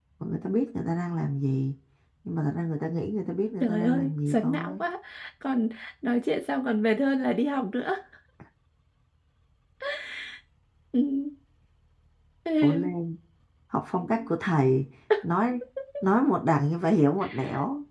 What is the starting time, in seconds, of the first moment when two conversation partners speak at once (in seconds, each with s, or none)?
3.6 s